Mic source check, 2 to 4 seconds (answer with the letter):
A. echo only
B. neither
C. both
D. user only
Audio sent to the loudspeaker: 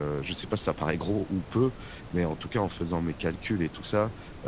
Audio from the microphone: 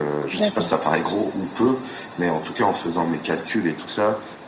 A